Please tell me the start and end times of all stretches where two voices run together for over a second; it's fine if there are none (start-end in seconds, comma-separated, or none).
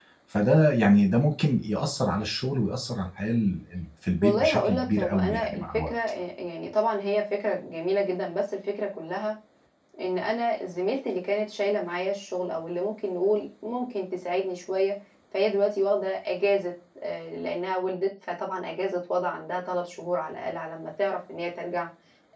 4.2-5.9